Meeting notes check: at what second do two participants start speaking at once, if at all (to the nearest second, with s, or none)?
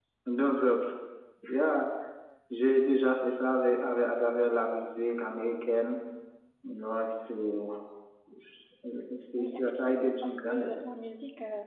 9 s